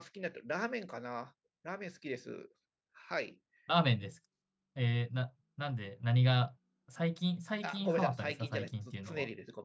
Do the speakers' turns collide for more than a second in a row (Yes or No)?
Yes